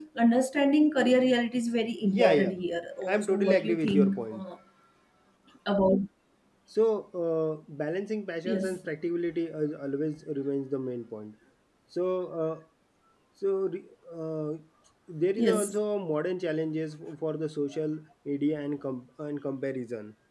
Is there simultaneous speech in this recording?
Yes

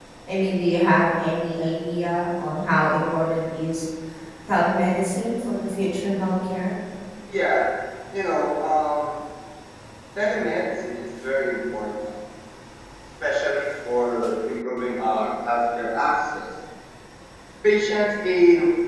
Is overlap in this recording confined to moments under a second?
Yes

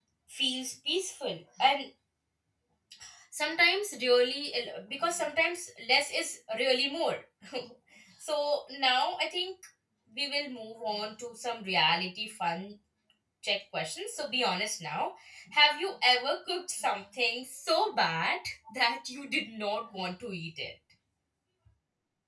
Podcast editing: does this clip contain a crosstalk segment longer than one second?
No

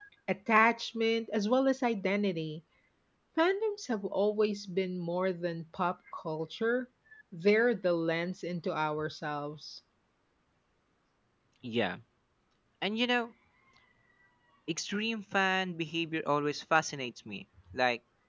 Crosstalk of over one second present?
No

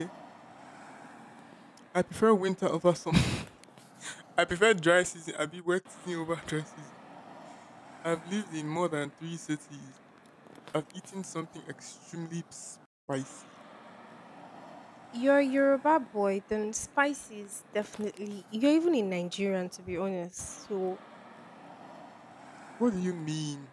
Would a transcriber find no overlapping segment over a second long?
Yes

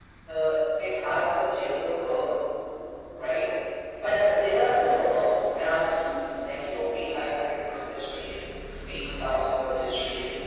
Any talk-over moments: No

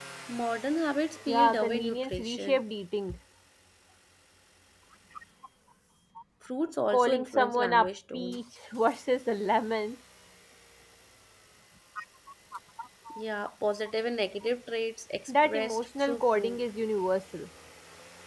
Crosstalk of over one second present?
Yes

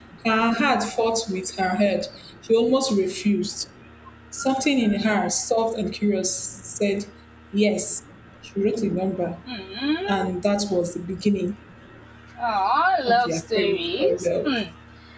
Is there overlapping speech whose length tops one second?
Yes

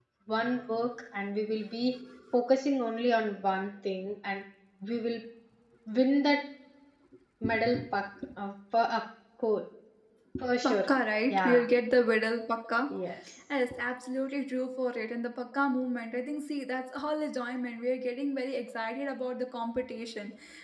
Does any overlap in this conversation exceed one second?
No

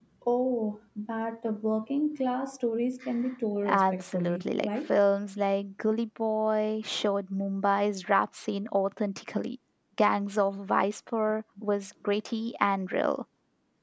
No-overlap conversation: No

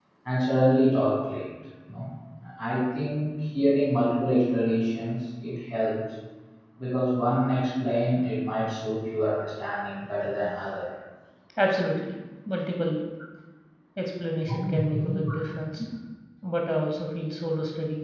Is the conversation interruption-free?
Yes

